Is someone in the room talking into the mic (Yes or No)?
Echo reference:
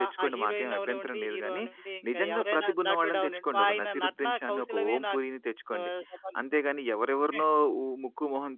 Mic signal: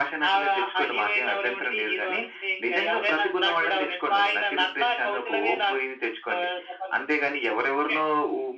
No